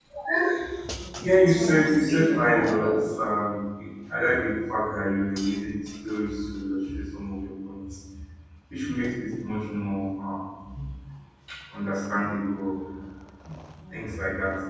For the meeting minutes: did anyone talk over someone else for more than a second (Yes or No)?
Yes